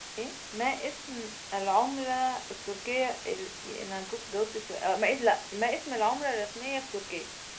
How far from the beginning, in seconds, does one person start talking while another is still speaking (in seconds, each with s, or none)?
none